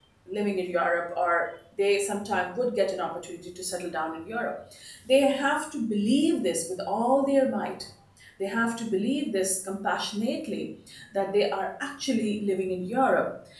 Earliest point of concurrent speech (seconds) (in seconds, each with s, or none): none